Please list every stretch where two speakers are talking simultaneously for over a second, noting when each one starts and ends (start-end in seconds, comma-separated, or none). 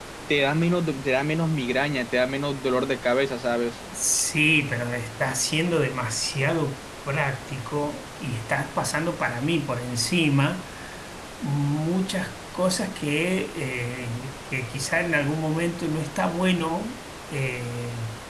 none